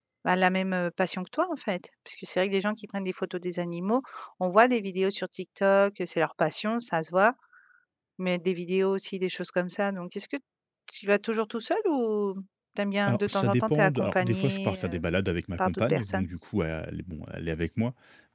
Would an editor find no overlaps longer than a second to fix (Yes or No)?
No